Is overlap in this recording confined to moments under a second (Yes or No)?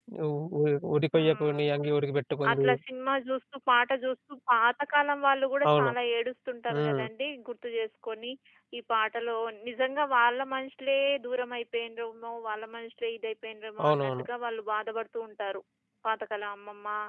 Yes